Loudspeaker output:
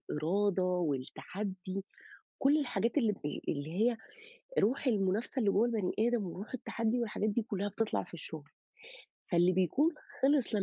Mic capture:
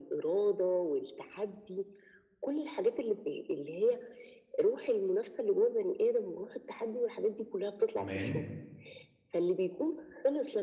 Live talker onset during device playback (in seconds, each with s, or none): 7.9 s